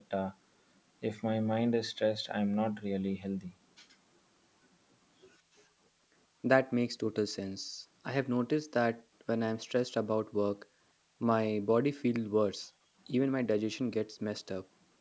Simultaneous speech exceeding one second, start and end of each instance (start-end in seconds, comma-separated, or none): none